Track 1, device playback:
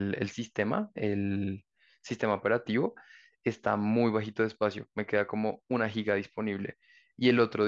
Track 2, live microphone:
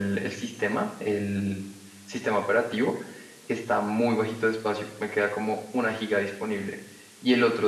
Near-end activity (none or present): none